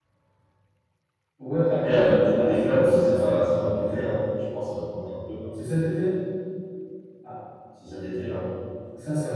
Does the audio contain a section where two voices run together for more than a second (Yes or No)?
Yes